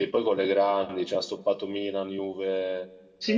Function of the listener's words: taking over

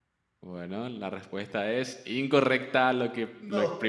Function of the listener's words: listening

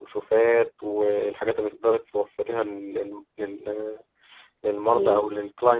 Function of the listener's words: listening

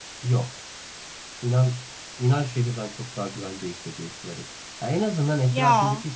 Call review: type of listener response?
listening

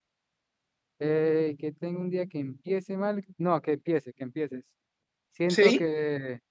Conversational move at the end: listening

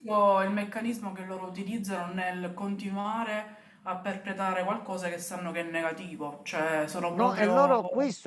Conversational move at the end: taking over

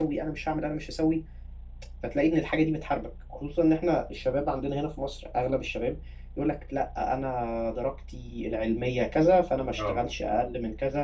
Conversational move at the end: listening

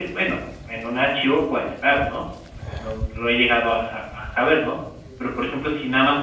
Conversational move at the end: listening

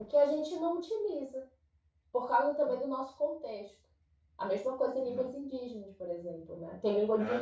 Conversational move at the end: taking over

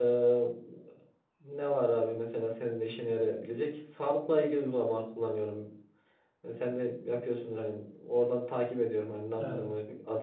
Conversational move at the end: listening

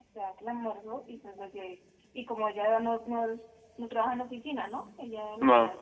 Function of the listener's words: listening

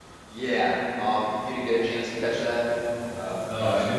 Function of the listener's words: taking over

